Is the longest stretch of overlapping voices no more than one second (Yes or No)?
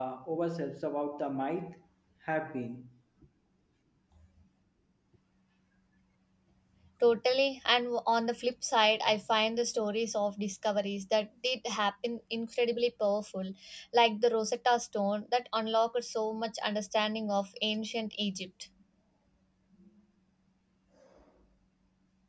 Yes